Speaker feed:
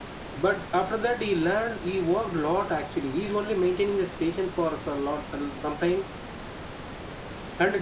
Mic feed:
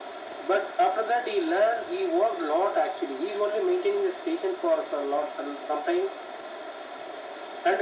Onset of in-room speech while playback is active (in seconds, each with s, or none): none